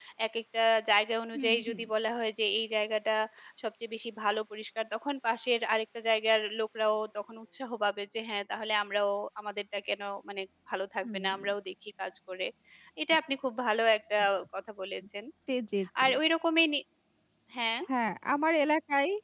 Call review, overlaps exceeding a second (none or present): none